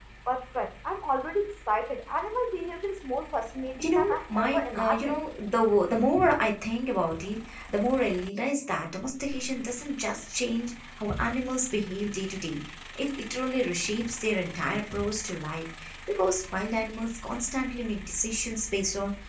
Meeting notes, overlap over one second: present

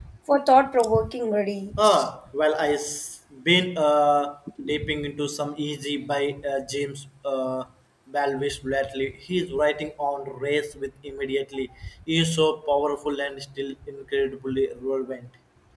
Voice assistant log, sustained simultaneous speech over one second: none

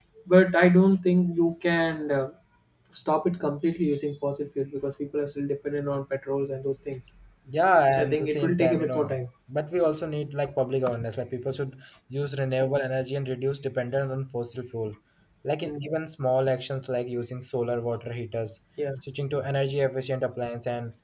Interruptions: present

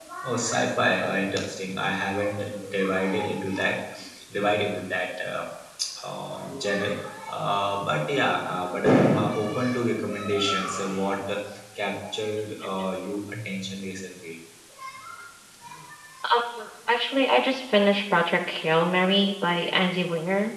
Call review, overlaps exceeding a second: none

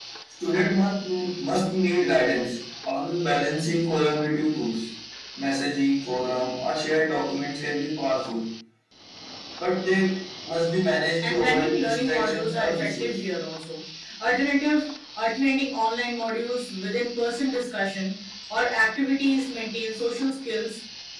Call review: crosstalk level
present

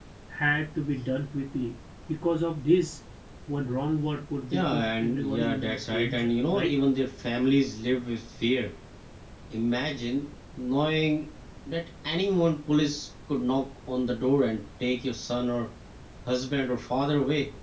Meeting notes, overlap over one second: present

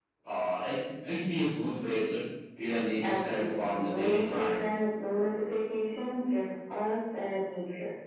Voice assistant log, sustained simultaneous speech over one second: present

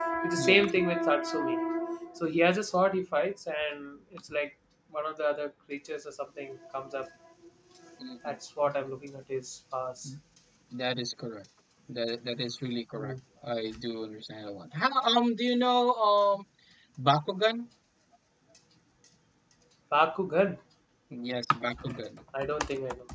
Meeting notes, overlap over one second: none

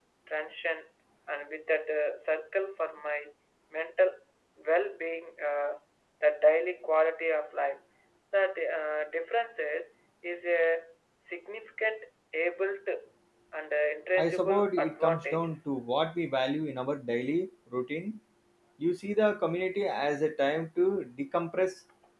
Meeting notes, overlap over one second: present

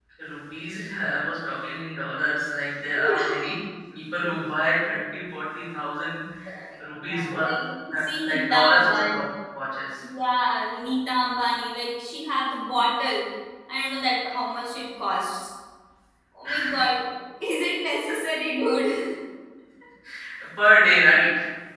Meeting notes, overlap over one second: present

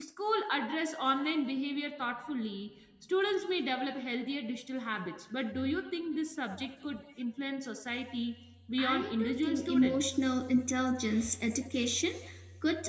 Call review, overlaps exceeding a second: present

